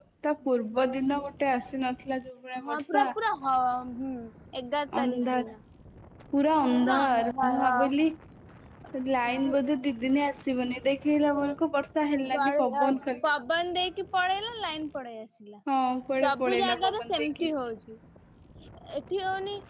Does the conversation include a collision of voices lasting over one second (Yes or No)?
Yes